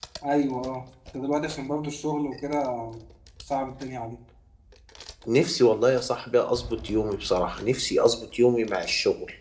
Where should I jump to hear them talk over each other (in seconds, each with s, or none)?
none